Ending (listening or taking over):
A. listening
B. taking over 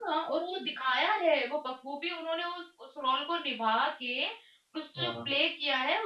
A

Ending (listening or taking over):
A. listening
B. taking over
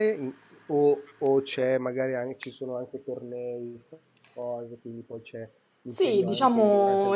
B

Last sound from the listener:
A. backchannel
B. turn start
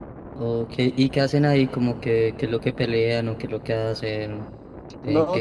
B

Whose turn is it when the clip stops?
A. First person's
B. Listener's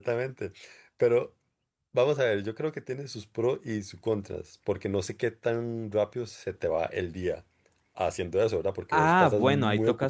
B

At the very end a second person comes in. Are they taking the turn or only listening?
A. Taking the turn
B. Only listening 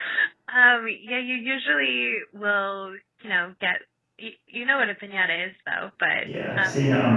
A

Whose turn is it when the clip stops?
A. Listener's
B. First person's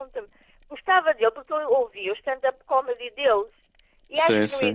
B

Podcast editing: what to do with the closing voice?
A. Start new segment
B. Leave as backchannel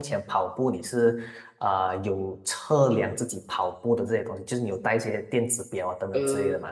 A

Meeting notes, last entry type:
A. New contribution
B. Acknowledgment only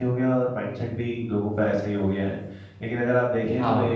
B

